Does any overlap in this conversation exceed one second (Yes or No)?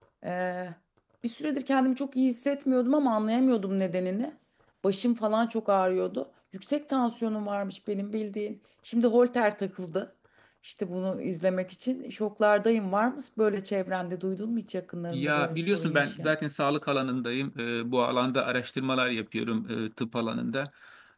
Yes